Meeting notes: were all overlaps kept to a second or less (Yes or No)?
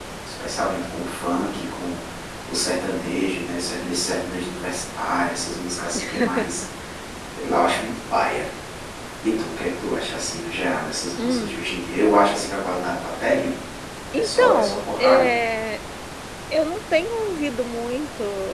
No